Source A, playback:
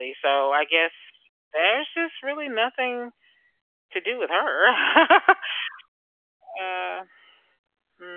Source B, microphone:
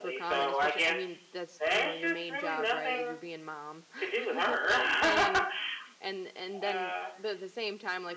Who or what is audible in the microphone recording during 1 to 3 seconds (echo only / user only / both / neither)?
both